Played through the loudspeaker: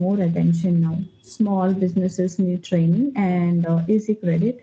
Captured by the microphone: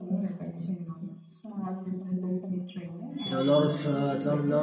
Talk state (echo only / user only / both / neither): both